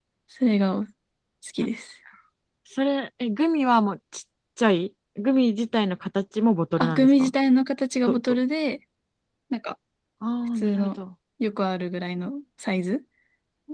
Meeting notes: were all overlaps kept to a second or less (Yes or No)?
Yes